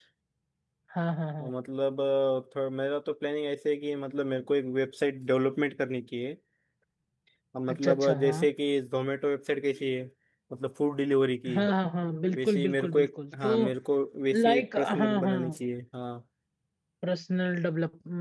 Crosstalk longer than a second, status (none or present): present